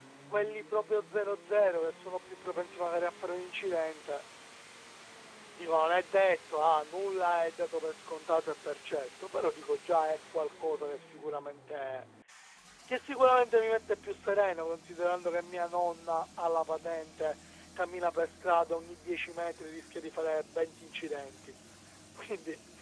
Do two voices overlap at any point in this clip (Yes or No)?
No